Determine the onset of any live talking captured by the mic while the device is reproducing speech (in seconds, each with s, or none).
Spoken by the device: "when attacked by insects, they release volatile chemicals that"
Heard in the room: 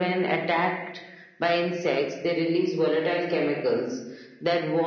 none